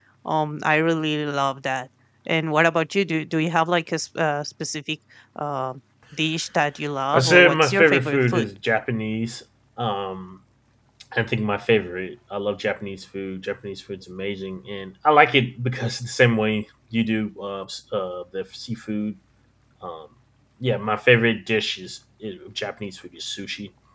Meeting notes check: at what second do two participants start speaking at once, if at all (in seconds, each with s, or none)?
7.1 s